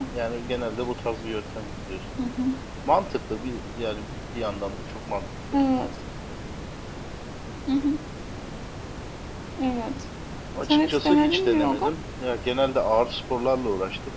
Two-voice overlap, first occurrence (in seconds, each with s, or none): 10.6 s